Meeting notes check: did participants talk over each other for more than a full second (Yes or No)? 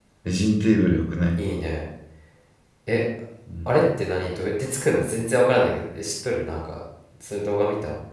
No